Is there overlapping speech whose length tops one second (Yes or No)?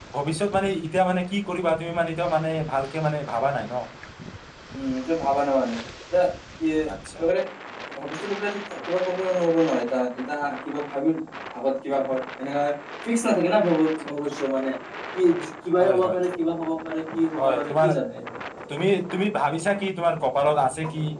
No